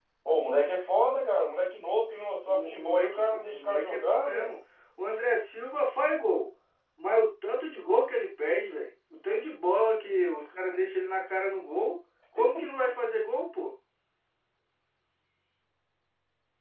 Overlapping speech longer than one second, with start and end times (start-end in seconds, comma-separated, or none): 2.5-4.5